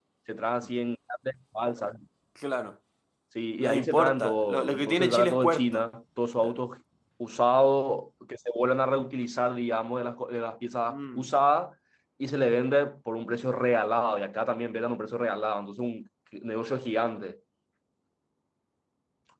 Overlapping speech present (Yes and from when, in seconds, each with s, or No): Yes, from 3.6 s